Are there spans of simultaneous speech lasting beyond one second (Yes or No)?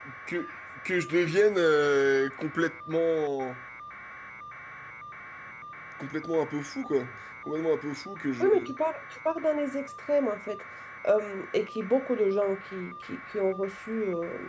No